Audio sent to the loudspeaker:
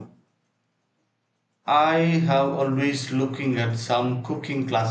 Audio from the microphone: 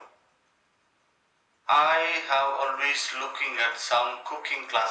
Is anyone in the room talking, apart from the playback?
No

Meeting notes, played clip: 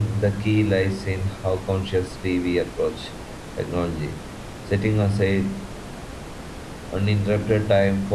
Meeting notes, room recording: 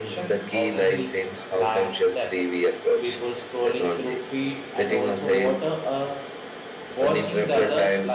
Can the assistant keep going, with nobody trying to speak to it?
No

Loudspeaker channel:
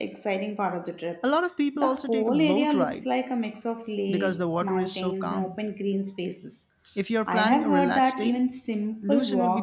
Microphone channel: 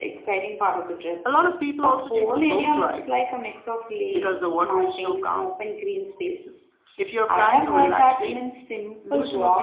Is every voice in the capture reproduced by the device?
Yes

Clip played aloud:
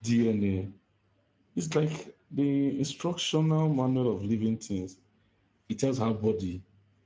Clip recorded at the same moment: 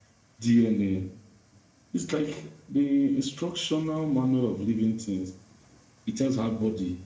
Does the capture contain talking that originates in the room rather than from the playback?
No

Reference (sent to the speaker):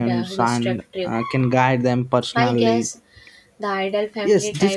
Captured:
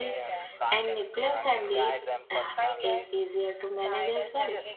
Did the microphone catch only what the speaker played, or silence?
No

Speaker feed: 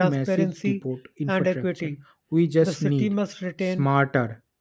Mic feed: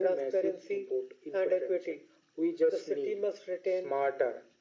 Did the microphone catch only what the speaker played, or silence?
Yes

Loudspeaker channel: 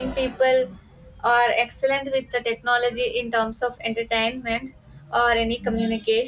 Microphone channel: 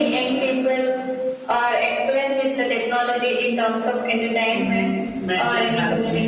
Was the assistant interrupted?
Yes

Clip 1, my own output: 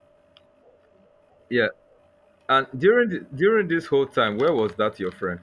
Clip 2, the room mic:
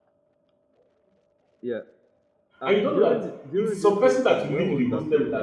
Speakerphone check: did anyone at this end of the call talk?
Yes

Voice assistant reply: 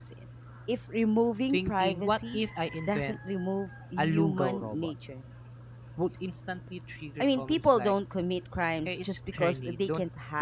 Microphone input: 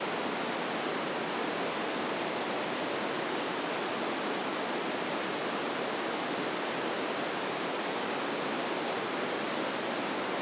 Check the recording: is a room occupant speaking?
No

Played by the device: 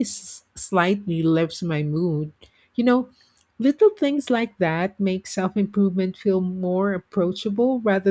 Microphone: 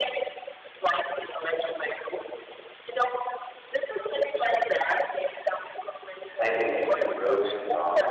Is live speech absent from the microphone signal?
No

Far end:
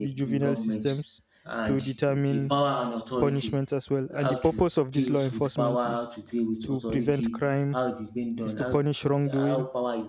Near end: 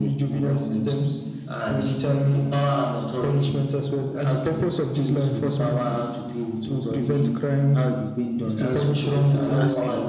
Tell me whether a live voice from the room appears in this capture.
Yes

